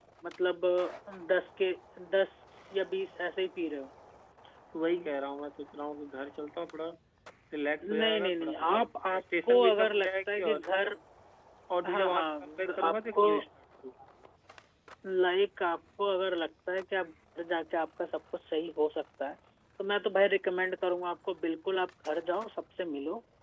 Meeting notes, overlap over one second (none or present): present